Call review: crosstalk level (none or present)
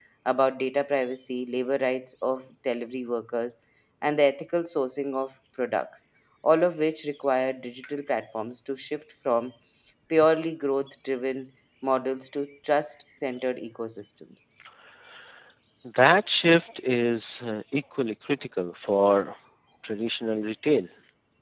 none